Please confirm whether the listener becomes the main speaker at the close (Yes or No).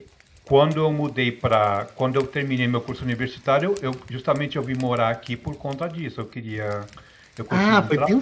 Yes